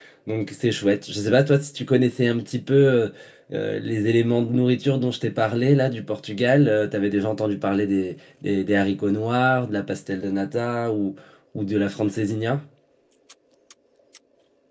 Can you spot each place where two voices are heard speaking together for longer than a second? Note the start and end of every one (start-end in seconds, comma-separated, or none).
none